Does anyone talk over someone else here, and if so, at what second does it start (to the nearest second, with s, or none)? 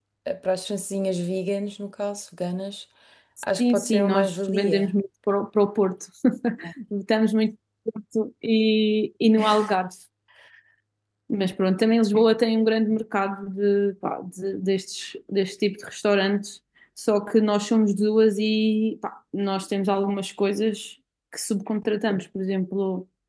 4 s